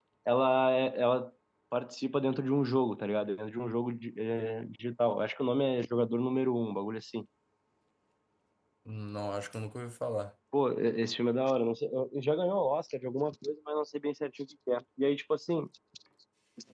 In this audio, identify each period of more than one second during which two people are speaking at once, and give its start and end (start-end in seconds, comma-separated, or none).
none